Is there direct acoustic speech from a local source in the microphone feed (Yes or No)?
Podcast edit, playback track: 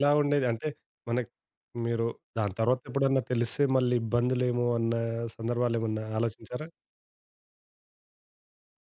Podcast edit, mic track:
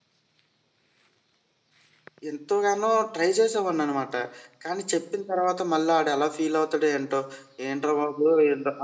Yes